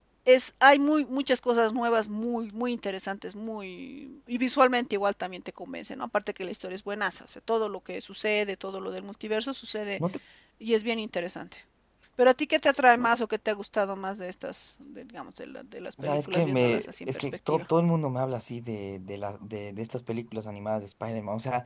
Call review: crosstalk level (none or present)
present